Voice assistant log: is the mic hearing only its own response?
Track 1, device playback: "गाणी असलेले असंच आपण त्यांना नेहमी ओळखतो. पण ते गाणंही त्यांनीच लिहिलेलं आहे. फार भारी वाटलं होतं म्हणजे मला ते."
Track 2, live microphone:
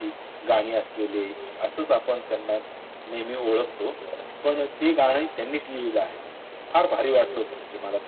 Yes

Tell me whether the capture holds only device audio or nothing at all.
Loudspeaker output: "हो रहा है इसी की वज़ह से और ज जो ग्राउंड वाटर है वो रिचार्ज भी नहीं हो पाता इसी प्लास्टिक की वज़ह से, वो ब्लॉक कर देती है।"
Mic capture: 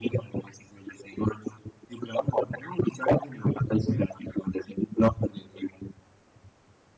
Yes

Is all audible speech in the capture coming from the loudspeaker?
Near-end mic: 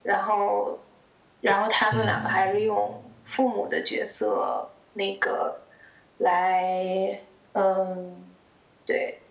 No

